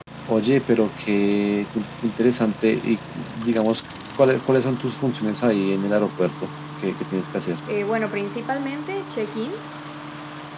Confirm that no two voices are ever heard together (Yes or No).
Yes